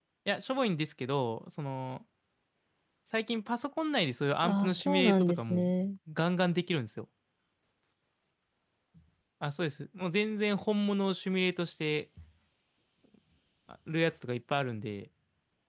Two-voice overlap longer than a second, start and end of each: 4.4-5.7

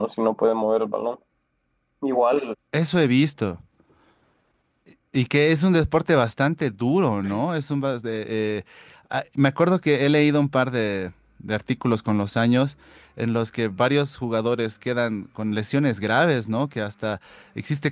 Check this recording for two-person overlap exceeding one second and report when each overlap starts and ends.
none

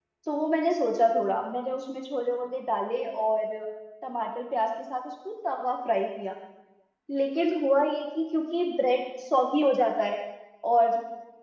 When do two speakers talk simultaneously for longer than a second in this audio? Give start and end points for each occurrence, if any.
none

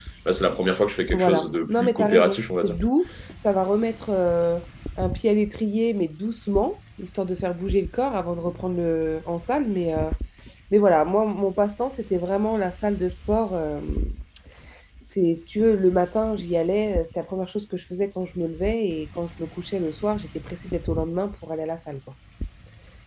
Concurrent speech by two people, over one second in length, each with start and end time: 1.1-2.8

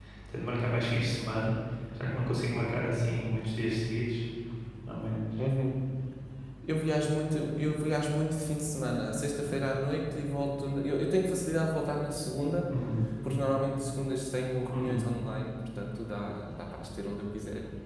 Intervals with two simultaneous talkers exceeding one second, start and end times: none

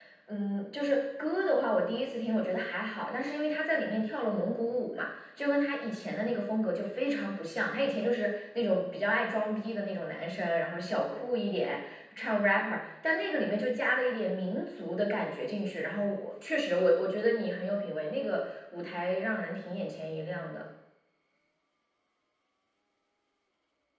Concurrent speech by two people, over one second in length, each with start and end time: none

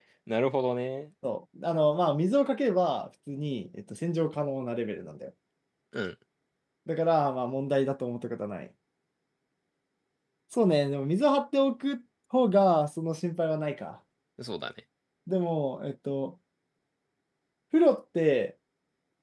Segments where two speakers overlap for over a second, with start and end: none

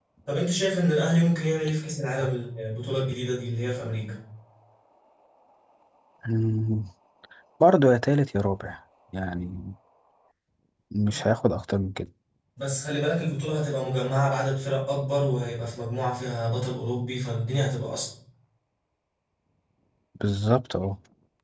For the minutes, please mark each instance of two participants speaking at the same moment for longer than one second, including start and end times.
none

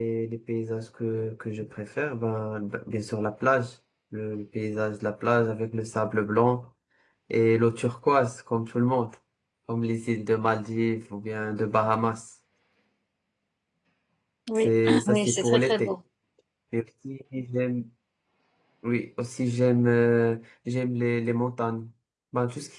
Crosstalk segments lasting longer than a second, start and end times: 14.6-15.9

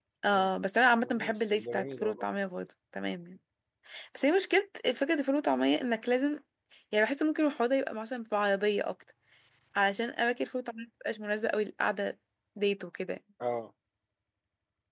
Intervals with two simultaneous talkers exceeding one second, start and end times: 1.0-2.3

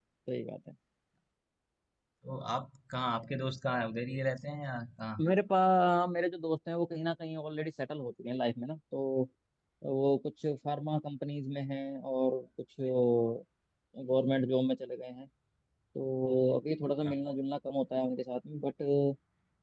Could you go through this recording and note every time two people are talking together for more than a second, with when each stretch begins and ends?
none

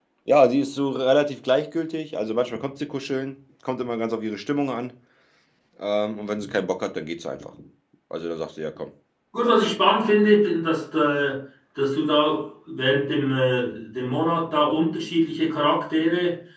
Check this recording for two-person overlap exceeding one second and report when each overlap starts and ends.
none

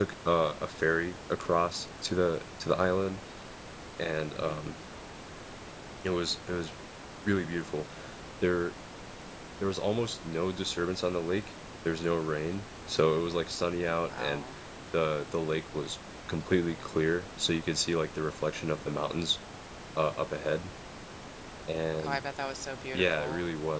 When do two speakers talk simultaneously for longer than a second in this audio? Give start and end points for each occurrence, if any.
none

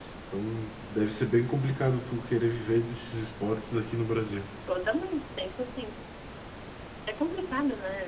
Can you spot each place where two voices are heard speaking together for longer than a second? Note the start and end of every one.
none

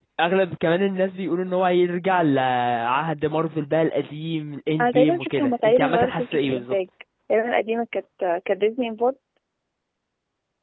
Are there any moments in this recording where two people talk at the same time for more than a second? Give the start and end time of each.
4.8-6.8

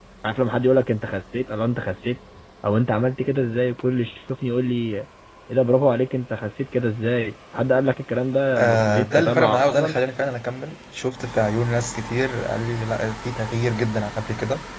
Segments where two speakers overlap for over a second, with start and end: 8.6-10.0

